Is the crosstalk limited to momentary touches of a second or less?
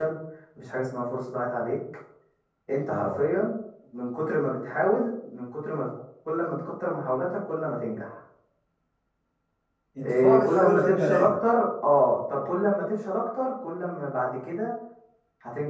No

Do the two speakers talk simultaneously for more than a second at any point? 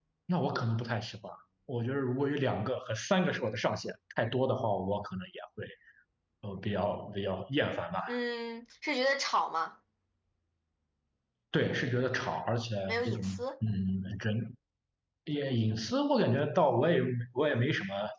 No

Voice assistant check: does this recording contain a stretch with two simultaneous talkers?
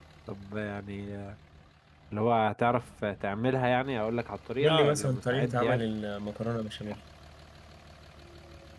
Yes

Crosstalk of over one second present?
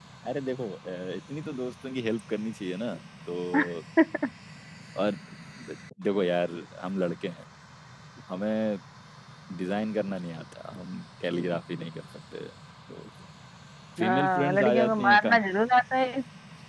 Yes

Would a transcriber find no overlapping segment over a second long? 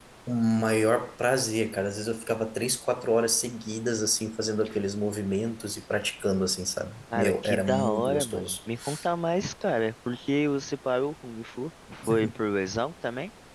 No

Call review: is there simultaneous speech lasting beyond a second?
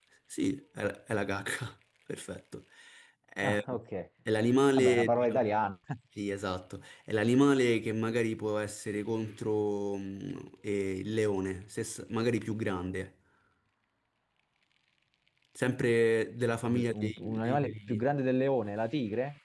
Yes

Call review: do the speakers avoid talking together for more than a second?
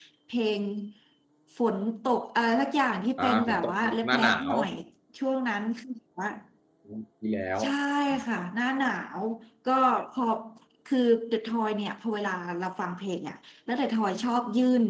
No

